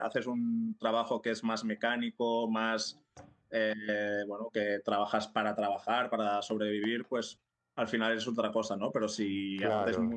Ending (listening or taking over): listening